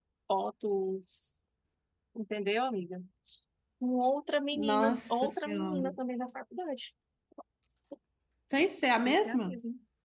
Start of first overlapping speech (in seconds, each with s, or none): 4.5 s